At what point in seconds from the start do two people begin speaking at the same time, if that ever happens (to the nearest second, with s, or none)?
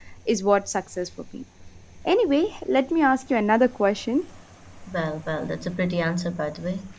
none